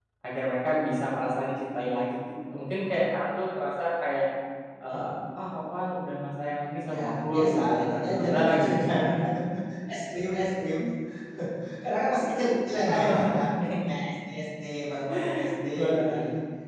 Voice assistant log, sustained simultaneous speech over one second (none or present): present